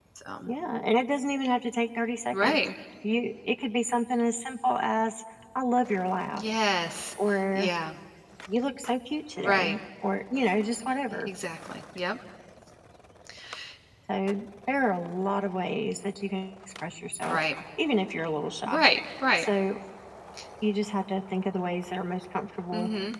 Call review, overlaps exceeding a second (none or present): none